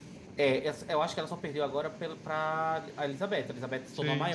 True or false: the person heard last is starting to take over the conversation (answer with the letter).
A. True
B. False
B